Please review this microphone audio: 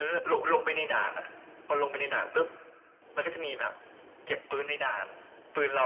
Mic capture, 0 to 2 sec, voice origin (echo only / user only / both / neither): echo only